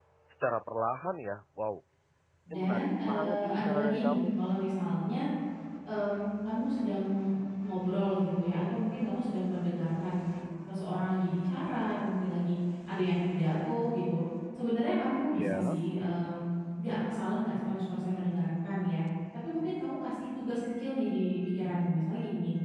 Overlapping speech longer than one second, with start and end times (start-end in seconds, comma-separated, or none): 2.5-4.2